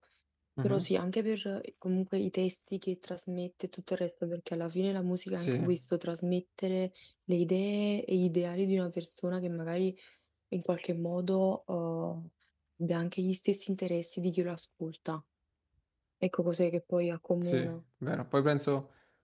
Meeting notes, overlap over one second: none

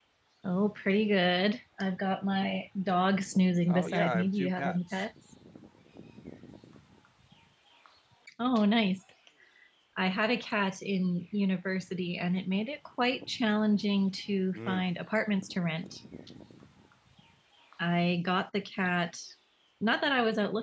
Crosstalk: present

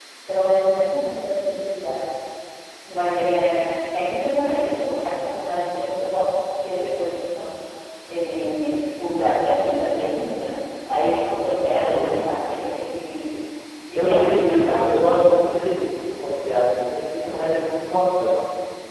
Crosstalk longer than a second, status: present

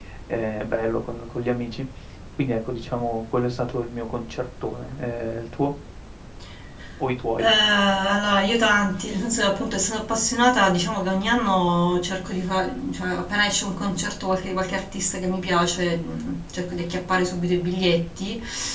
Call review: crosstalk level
none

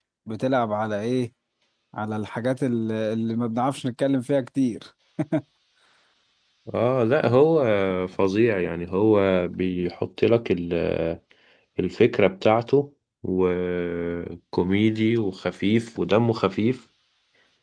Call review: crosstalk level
none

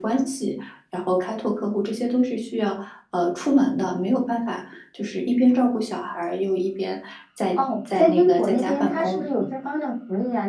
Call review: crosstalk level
present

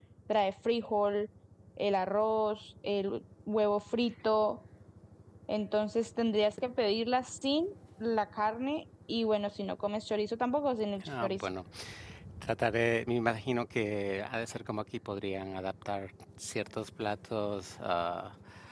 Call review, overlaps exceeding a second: none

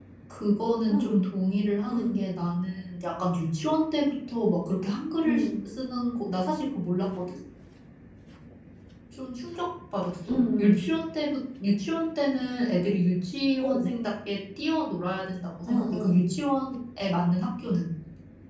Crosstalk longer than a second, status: none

